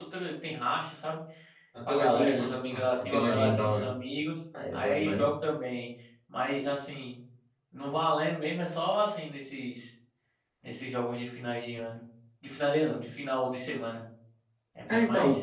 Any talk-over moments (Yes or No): Yes